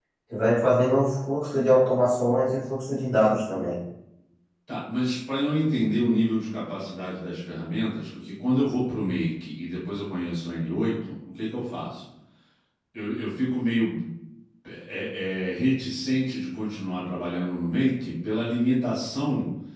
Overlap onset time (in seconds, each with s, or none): none